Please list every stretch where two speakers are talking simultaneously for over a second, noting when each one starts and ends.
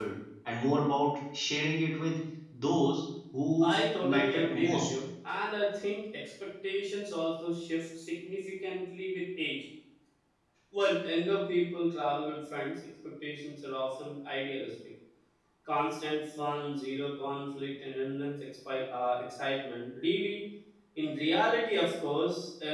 3.6-4.9

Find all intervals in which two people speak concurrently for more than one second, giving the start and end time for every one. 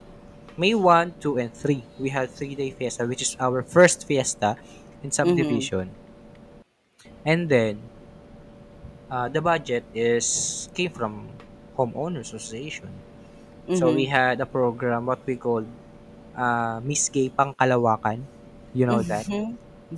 none

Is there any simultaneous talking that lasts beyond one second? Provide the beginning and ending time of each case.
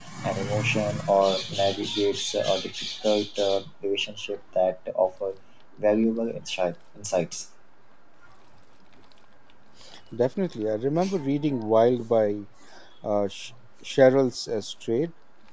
none

